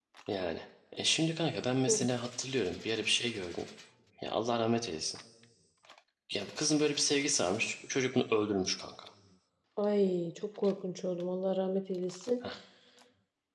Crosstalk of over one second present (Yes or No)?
No